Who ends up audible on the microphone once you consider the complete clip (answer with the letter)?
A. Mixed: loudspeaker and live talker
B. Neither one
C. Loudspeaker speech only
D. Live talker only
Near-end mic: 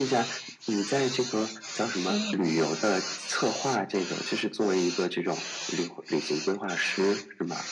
A